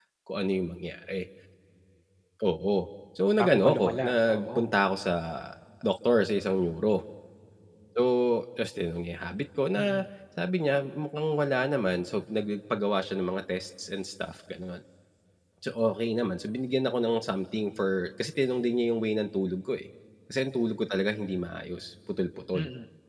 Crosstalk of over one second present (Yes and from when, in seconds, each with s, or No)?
Yes, from 3.4 s